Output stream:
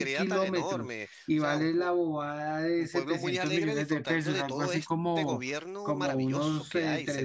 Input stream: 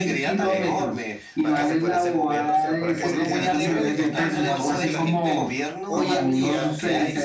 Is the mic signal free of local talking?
No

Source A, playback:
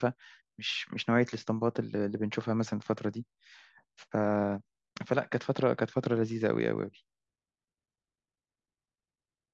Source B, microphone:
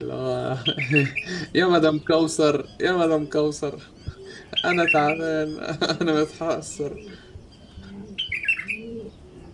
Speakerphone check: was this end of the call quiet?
No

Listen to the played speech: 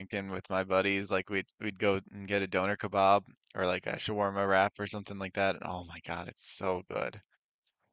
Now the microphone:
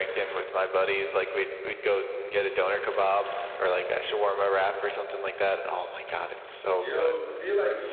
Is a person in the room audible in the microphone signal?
Yes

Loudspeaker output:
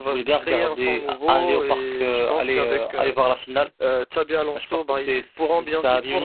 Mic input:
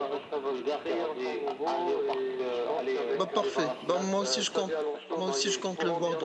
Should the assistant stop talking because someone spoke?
Yes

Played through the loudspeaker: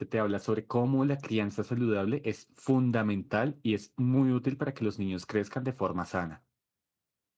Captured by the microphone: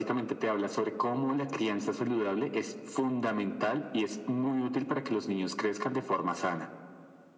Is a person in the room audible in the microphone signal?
No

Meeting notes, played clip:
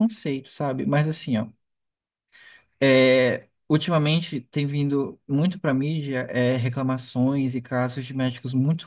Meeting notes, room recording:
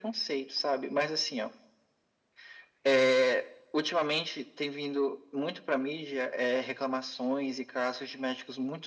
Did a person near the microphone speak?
No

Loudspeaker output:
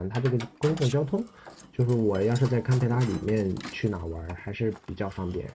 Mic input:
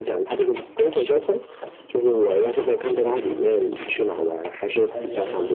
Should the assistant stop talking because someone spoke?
Yes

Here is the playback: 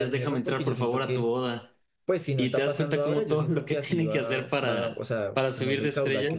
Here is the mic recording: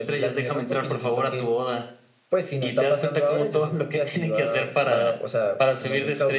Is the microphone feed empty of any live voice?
Yes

